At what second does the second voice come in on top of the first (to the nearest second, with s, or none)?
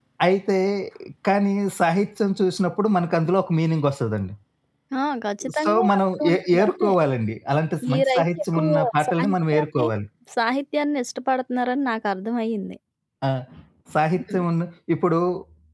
6 s